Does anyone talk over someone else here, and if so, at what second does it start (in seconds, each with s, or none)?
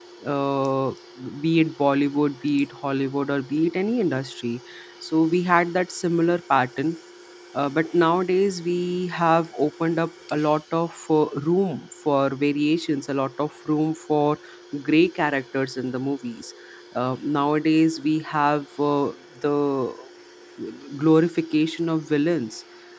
none